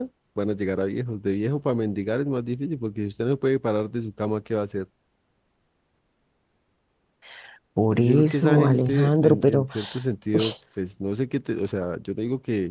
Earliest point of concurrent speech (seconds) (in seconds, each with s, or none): 7.9 s